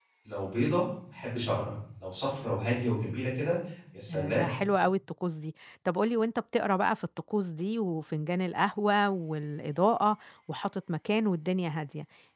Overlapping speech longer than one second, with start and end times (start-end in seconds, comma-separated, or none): none